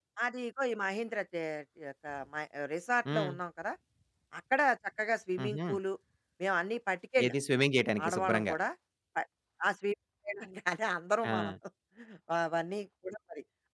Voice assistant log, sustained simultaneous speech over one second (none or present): none